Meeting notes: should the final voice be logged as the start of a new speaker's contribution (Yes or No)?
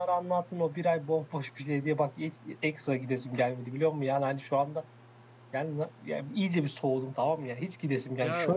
Yes